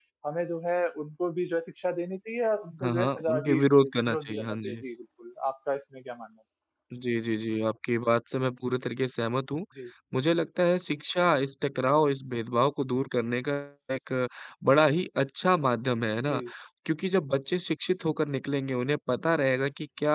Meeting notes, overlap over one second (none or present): present